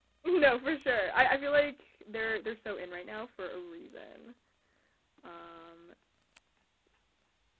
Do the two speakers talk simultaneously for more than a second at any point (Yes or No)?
No